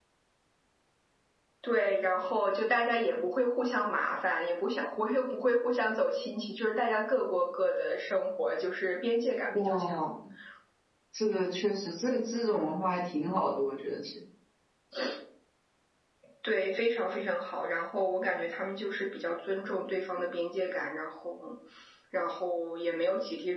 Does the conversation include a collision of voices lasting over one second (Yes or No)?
No